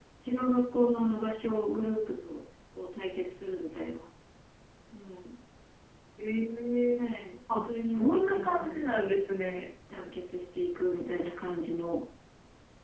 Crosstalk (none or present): present